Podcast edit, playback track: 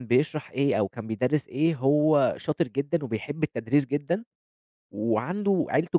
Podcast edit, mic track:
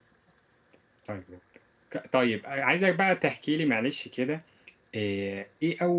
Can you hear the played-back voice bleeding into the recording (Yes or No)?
No